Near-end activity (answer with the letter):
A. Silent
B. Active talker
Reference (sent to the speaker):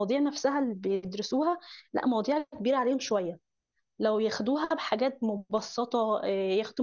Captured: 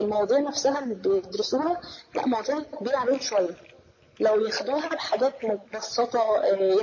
A